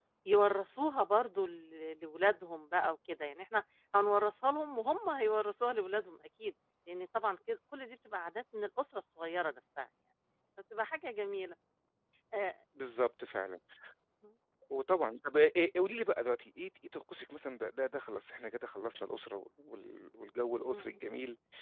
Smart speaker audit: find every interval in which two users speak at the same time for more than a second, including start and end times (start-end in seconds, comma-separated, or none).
none